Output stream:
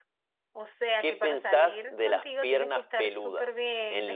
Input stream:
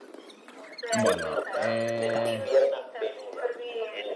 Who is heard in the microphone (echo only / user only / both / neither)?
both